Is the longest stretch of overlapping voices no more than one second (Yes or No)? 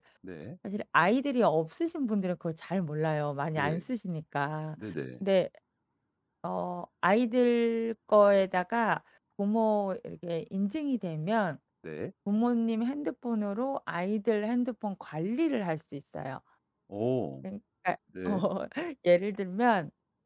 Yes